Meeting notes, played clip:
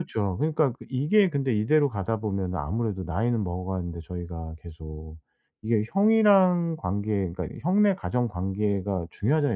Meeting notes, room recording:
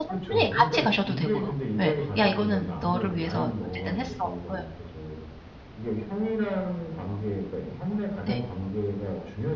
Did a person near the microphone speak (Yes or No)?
Yes